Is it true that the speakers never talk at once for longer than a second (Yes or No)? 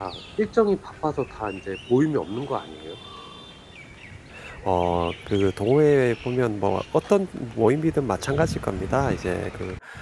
Yes